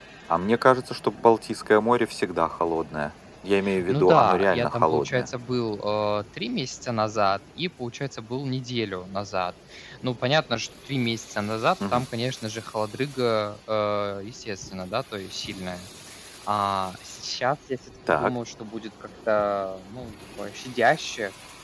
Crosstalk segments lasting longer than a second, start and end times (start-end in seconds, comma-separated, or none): 3.9-5.3